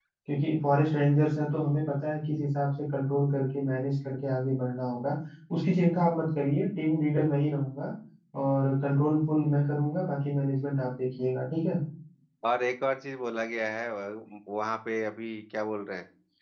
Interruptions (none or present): none